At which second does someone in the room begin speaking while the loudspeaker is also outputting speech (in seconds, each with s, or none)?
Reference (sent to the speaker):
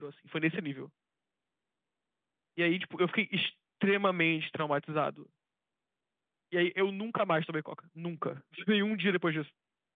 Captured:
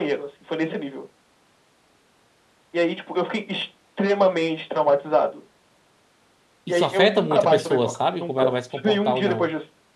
6.6 s